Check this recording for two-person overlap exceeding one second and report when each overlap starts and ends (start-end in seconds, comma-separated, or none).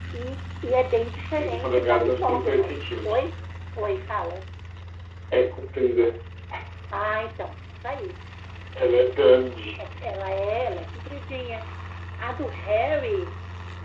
1.4-3.1